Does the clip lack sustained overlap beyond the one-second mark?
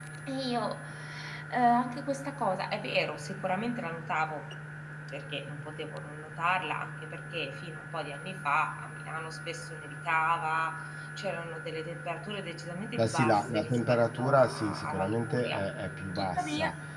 No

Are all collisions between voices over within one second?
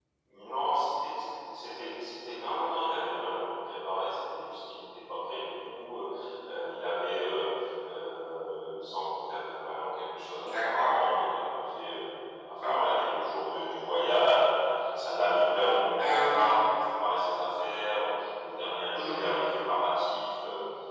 Yes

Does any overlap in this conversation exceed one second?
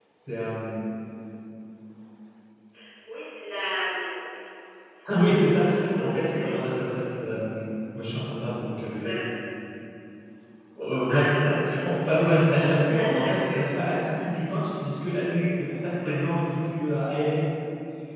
Yes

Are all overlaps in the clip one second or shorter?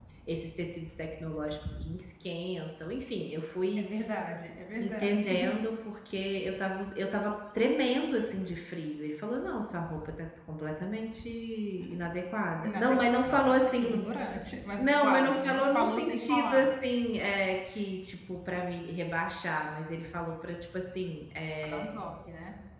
No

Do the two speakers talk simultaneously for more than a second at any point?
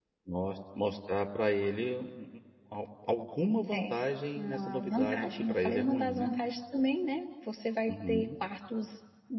Yes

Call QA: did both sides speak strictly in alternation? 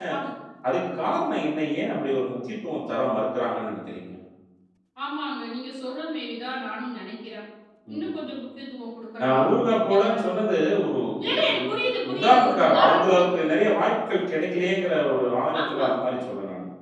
No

